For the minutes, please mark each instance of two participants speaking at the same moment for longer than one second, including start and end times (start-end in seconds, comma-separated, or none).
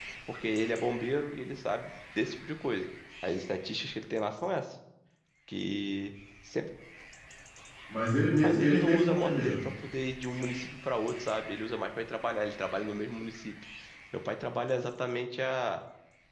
8.4-9.7